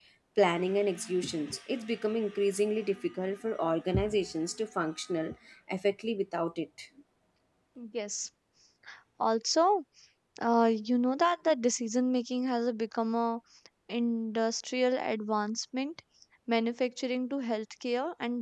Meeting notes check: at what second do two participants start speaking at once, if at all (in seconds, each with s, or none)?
none